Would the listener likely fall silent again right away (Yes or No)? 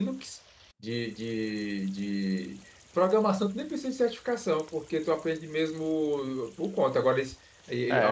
No